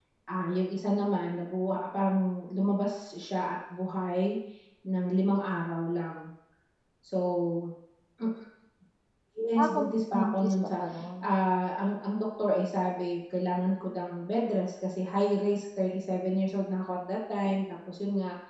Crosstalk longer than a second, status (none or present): present